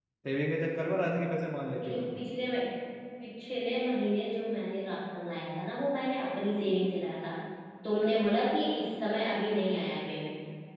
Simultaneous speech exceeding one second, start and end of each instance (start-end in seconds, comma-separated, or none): none